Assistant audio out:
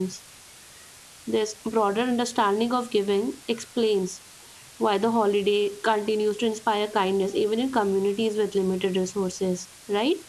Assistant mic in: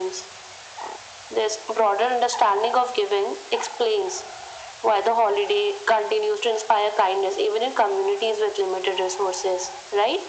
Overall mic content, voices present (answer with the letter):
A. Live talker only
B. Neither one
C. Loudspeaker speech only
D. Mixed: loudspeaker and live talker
C